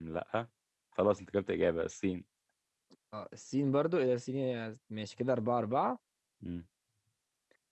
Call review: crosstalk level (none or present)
none